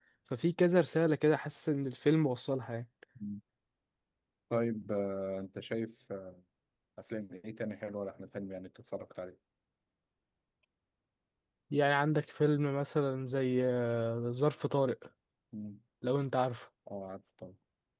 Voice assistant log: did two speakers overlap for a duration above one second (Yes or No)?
No